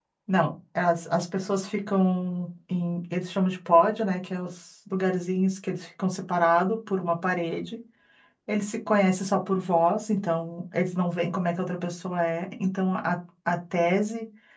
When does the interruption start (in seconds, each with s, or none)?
none